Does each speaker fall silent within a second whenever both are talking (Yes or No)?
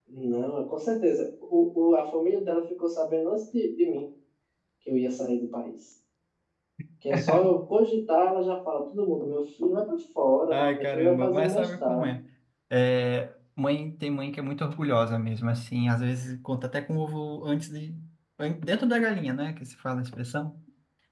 No